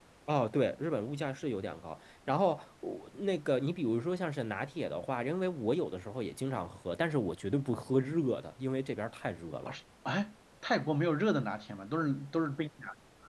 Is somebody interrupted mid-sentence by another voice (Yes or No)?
No